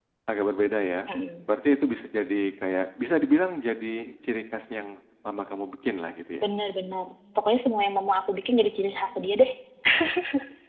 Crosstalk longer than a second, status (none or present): none